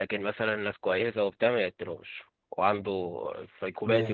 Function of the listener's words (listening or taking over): listening